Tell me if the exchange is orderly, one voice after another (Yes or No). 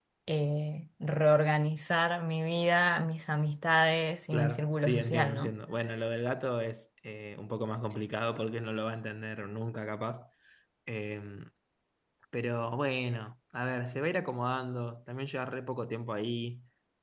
No